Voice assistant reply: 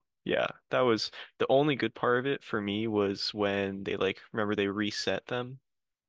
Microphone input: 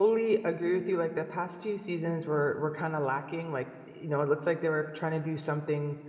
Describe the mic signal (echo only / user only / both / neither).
user only